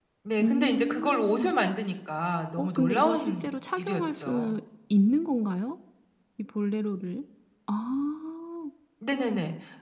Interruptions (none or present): present